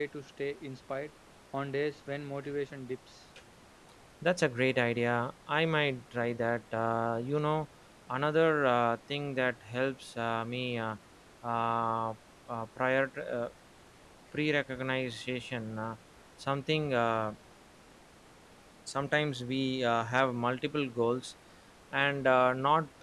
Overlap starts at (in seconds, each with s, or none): none